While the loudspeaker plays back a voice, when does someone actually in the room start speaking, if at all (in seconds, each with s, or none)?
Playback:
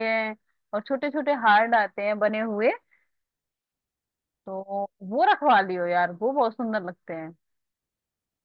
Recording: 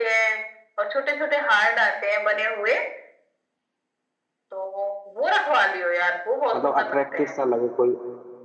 6.5 s